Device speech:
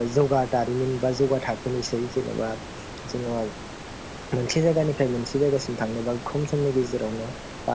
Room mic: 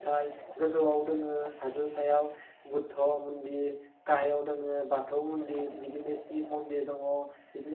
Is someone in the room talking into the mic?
Yes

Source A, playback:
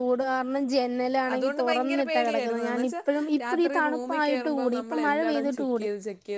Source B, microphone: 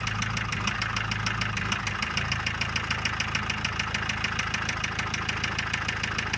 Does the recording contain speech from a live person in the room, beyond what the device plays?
No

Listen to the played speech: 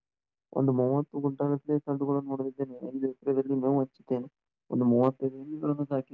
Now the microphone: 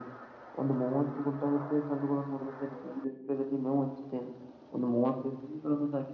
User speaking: No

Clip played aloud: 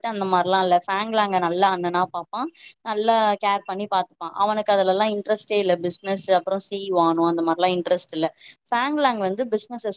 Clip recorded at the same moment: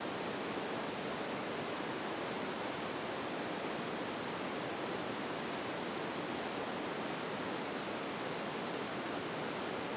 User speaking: No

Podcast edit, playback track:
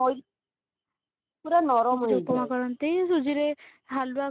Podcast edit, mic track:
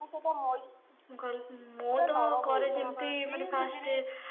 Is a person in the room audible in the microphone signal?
Yes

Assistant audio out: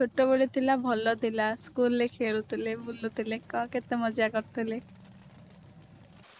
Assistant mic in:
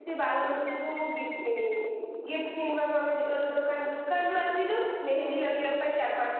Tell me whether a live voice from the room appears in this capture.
Yes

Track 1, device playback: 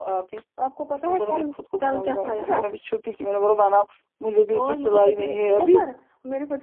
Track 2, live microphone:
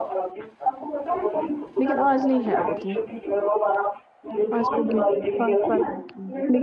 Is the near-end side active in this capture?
Yes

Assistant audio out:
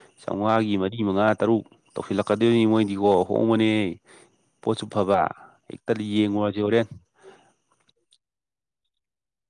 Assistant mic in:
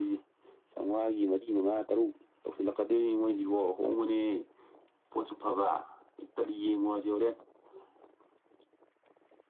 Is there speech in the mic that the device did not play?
No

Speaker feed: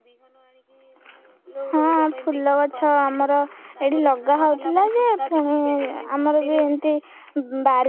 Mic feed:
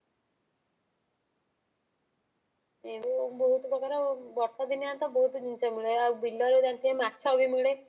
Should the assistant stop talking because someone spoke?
Yes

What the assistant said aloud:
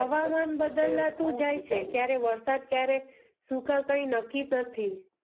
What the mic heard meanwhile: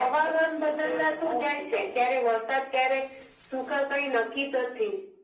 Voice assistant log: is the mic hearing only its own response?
Yes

